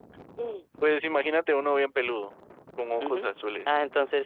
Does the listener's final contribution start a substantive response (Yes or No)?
Yes